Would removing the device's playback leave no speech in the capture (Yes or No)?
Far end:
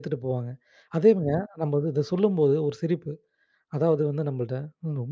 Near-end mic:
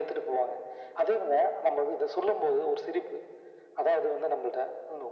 Yes